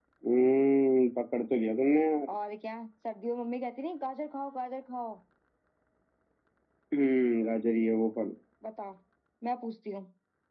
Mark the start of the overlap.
none

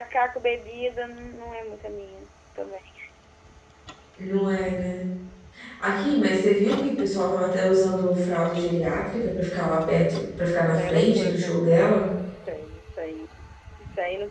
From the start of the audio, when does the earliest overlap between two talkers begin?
11 s

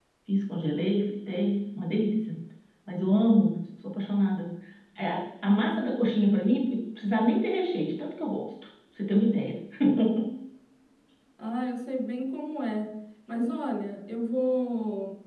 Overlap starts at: none

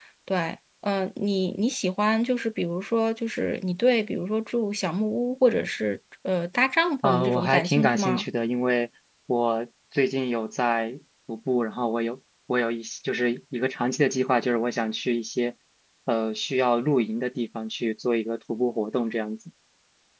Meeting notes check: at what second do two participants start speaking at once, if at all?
7 s

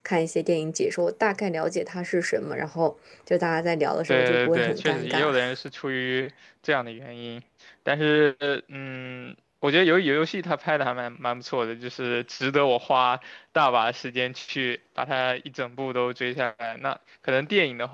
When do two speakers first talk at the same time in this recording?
4 s

